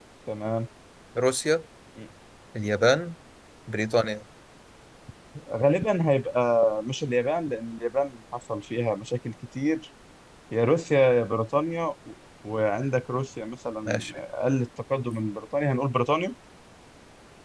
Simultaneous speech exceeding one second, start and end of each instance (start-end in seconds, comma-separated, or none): none